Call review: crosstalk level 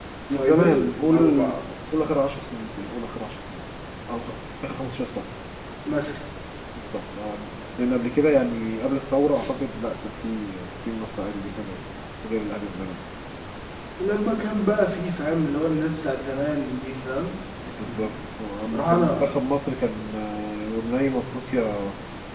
present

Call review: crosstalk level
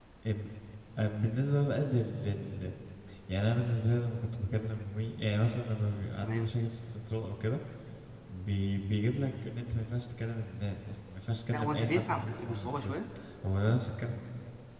present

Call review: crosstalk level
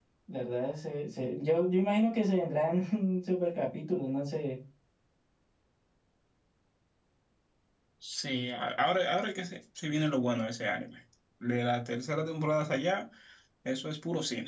none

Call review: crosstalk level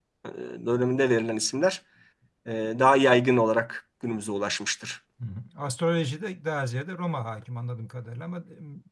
none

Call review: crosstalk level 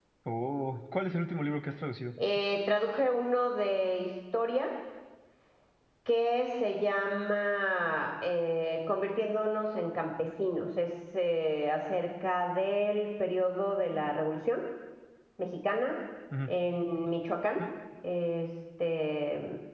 none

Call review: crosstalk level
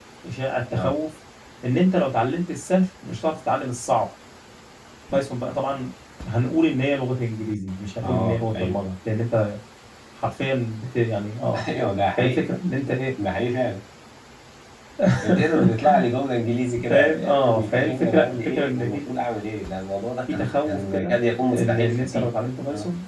present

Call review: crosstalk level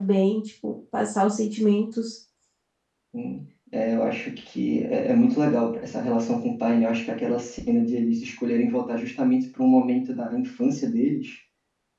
none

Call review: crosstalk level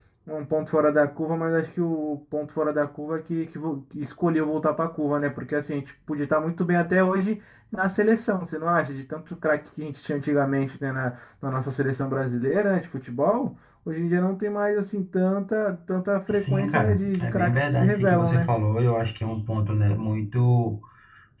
present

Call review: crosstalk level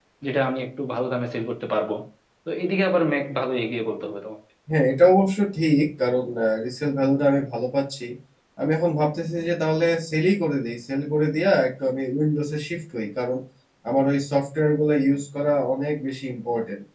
none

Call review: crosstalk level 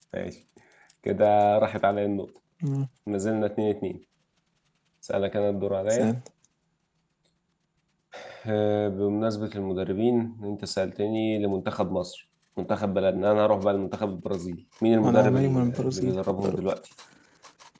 present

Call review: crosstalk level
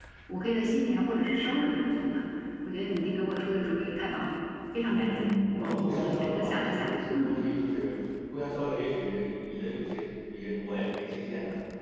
present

